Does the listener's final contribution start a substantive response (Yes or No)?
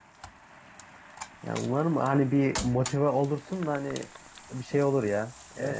Yes